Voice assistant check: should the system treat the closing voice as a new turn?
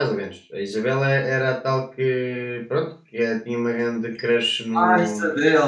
Yes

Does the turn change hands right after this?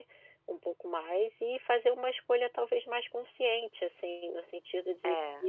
No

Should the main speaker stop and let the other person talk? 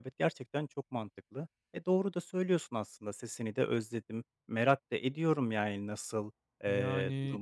No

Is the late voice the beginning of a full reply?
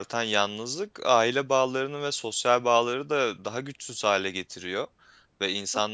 No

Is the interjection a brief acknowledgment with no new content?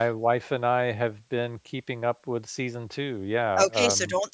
No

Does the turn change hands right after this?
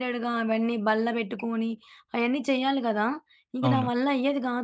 No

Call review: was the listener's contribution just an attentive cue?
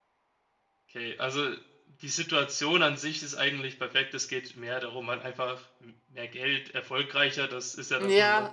No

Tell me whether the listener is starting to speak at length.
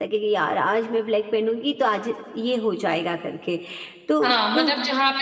Yes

